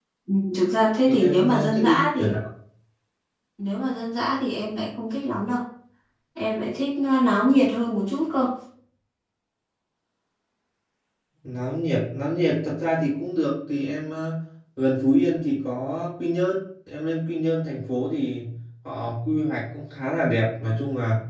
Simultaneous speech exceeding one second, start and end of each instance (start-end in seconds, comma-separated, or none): 1.1-2.3